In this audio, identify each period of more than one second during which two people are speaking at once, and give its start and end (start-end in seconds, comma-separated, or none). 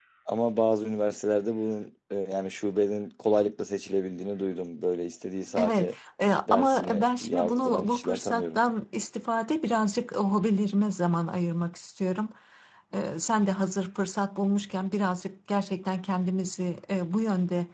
6.5-8.6